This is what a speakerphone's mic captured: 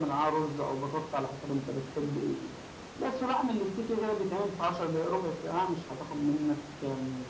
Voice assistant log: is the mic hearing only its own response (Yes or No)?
Yes